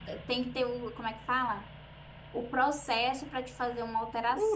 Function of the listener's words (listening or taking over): taking over